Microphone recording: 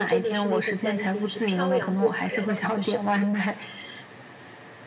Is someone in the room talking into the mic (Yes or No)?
Yes